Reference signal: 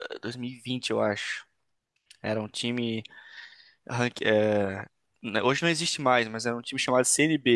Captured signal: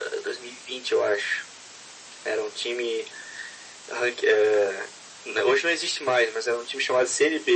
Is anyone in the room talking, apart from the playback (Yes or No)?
No